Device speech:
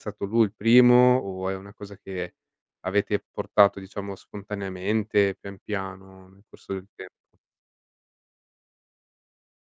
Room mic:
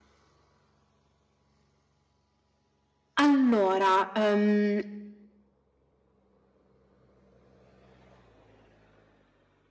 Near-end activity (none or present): present